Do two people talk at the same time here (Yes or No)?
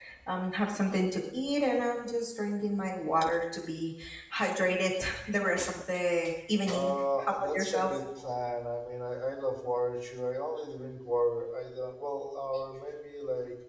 Yes